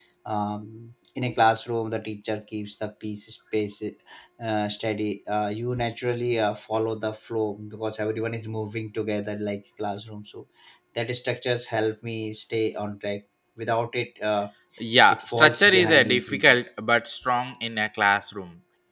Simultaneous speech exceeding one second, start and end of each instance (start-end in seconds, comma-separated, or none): 15.1-16.6